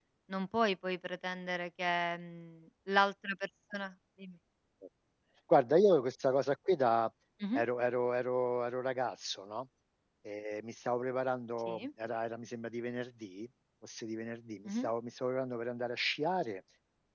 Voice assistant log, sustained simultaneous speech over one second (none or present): none